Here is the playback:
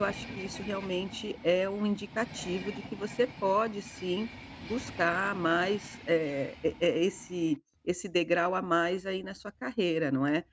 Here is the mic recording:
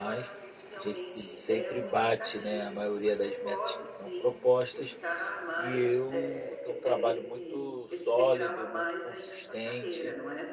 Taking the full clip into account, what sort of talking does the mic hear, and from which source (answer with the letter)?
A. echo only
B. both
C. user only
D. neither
B